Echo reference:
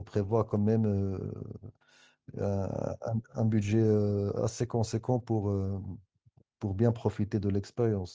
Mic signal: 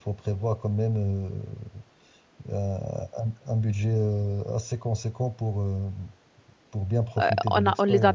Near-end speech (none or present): present